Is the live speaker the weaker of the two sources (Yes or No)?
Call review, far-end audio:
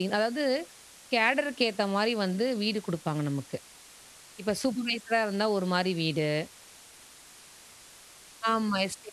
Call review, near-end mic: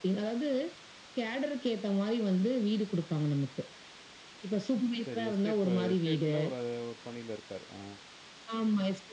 Yes